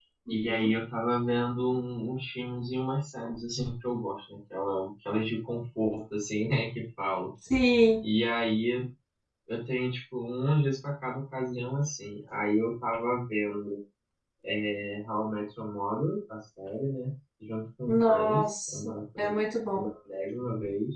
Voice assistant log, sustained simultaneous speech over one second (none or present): present